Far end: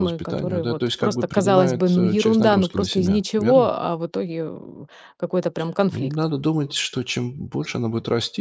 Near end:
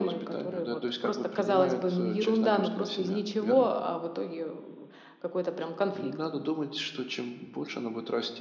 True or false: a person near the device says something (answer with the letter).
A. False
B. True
A